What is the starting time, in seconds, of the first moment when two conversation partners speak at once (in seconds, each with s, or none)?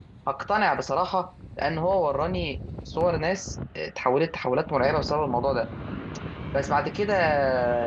none